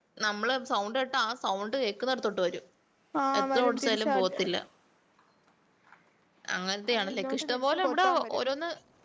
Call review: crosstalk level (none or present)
present